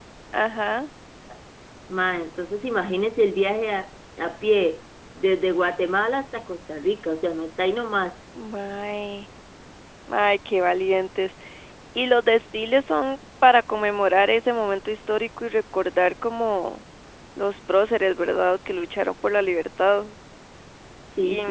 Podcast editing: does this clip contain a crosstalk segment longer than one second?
No

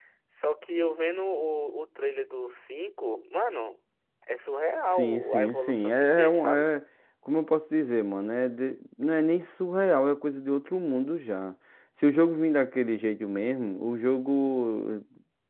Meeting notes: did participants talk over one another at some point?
Yes, from 4.9 s

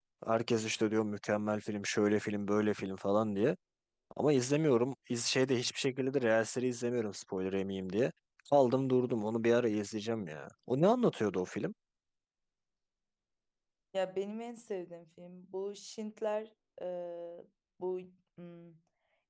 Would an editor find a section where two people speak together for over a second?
No

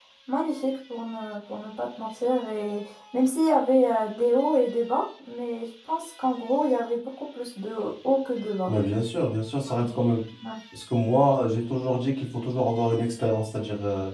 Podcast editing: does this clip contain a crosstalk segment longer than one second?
No

